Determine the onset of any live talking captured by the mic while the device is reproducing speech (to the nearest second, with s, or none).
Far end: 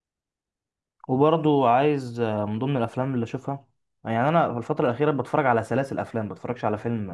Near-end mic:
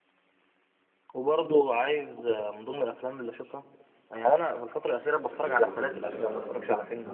5 s